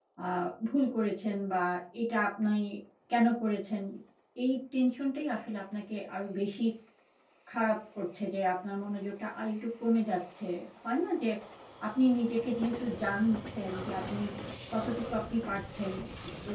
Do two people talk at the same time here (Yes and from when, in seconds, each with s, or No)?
No